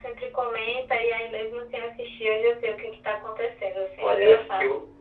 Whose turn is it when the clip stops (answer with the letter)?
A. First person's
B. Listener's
B